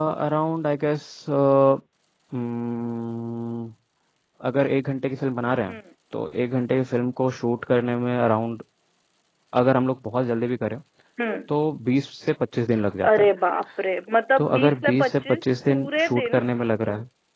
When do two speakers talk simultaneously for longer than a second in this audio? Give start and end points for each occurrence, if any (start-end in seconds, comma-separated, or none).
14.4-16.4